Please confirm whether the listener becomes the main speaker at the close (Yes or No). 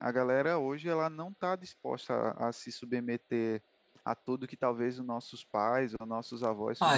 Yes